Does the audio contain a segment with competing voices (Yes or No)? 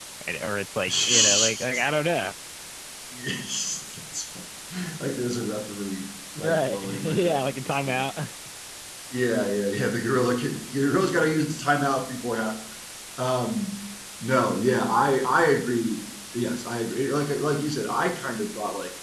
Yes